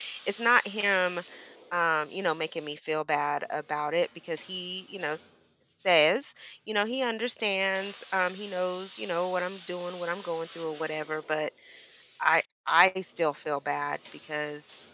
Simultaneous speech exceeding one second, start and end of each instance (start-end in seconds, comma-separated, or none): none